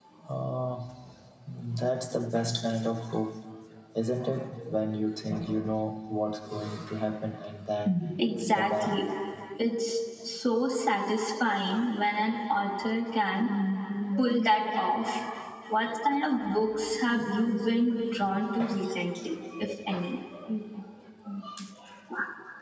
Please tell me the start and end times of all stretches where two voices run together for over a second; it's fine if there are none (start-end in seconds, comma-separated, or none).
none